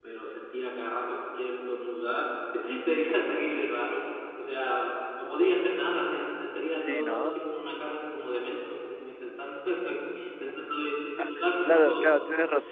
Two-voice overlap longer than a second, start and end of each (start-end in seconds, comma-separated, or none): 6.1-7.3